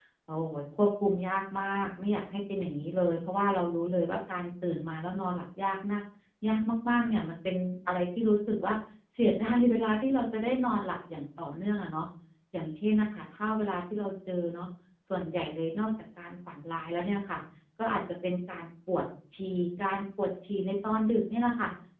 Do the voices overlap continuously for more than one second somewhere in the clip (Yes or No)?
No